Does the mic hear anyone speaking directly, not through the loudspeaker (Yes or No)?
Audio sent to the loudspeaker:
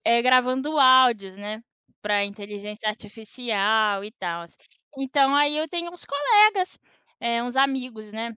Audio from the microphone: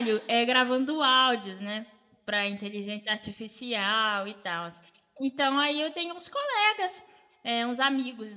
No